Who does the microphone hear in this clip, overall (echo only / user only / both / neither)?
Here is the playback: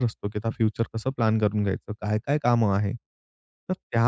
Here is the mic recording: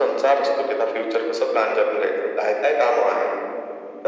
echo only